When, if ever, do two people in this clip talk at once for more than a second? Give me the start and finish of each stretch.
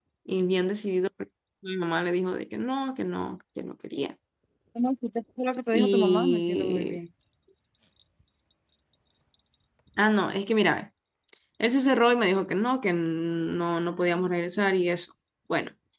5.7-7.0

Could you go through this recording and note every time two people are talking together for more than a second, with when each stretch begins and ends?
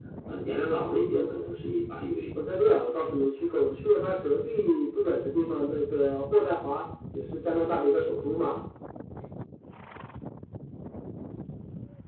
none

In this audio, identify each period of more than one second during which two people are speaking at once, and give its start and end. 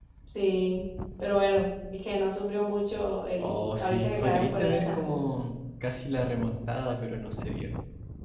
3.4-5.2

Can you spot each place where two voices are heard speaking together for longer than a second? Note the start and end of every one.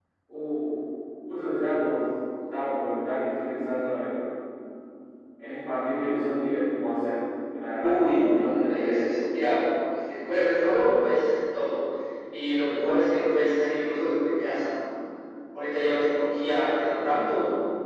7.8-9.0

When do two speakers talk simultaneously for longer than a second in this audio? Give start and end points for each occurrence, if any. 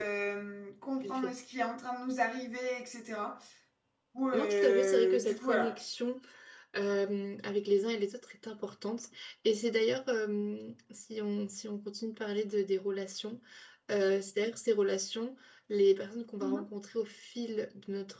4.3-5.8

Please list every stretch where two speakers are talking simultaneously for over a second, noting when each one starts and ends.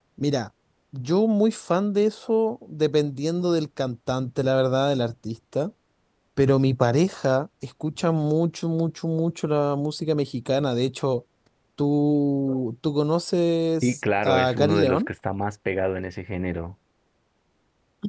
13.8-15.1

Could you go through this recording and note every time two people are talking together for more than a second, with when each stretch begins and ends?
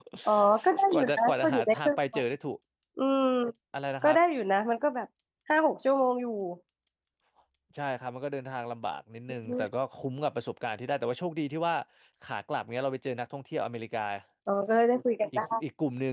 0.9-2.2

